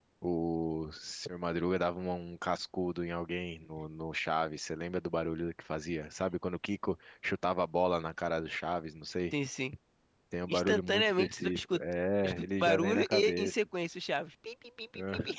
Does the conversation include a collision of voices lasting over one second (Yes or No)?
Yes